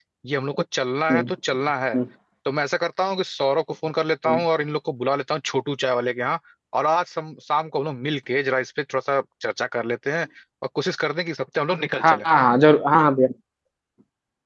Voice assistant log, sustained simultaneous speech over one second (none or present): none